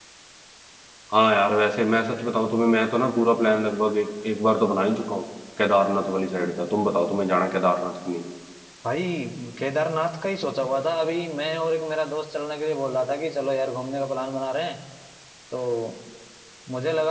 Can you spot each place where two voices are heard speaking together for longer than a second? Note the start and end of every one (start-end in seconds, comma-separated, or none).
none